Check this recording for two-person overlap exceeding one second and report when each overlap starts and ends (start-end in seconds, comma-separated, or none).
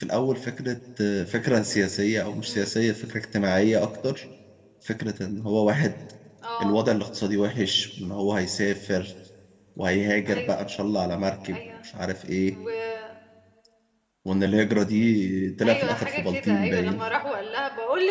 15.6-17.0